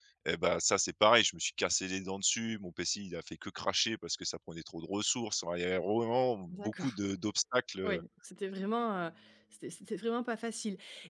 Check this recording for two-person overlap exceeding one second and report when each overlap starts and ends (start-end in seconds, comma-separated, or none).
none